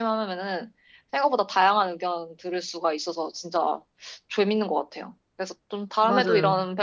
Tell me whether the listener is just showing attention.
Yes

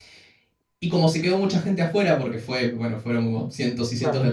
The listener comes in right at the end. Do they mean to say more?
No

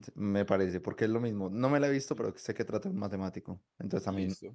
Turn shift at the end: Yes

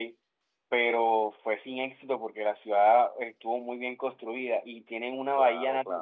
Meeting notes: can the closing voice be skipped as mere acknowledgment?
Yes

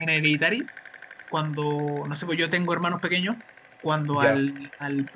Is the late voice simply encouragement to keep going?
Yes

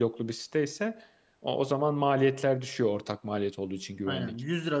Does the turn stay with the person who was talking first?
No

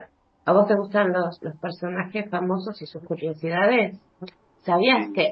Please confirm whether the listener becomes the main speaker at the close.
No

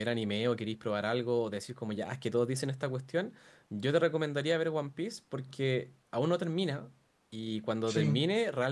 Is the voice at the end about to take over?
No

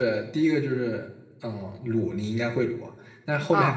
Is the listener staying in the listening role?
Yes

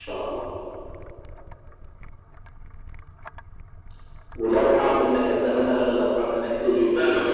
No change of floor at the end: No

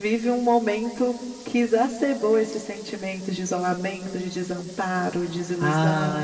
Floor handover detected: Yes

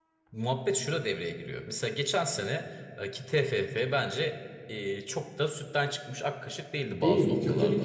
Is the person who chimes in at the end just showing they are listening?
No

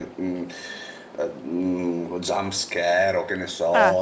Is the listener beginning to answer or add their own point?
No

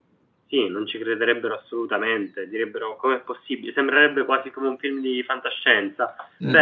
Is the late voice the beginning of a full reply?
No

